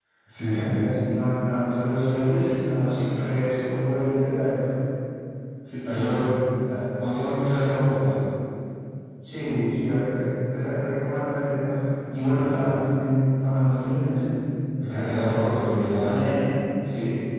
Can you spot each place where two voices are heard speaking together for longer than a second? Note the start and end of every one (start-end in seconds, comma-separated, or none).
14.9-16.2